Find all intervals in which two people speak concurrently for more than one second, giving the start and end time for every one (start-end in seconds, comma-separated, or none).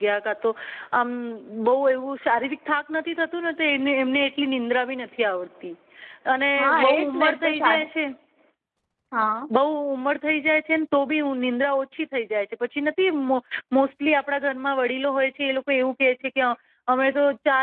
6.6-7.9